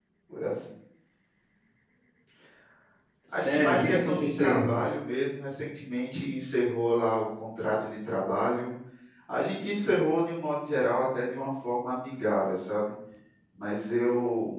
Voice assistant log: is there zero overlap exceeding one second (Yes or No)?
No